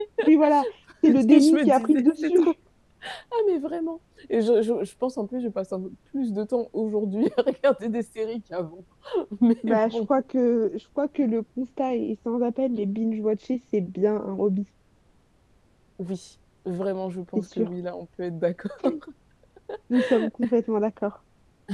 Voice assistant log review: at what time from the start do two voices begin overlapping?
1.0 s

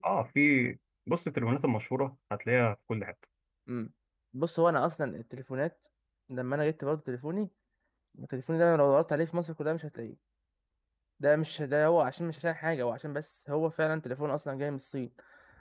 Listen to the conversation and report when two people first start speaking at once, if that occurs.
none

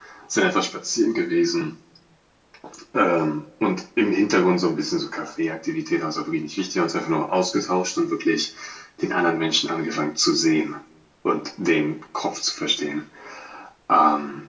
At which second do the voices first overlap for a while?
none

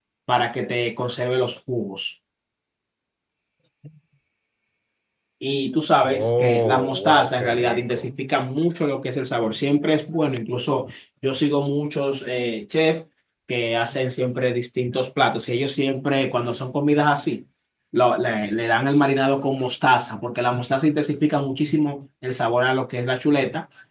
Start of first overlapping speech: 6.0 s

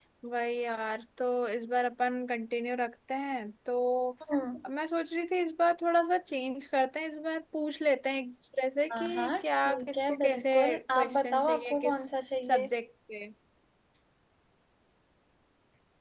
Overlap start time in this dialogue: 8.9 s

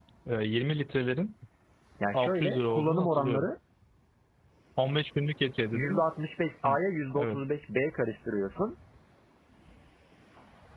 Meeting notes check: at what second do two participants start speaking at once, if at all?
2.1 s

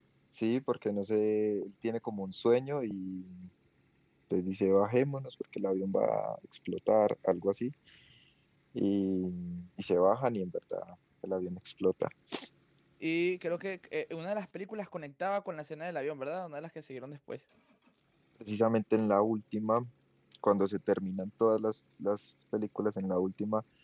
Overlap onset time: none

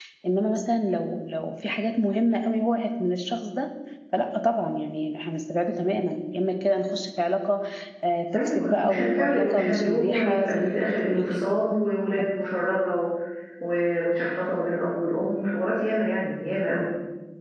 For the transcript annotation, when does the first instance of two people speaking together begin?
8.3 s

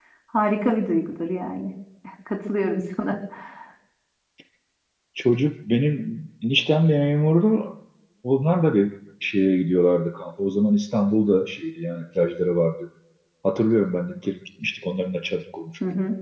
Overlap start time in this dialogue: none

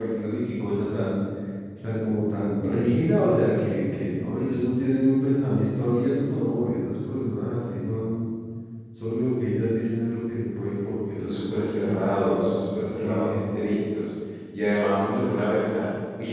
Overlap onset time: 11.2 s

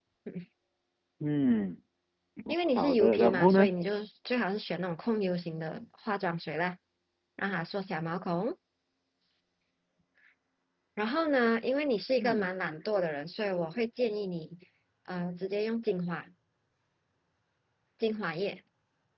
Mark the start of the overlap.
2.5 s

